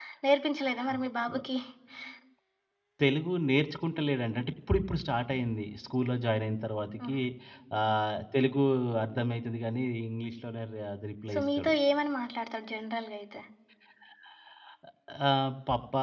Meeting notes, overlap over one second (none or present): none